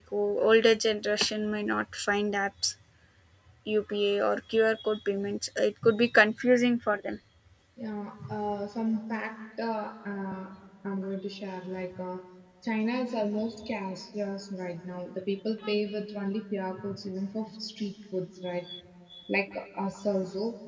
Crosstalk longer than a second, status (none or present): none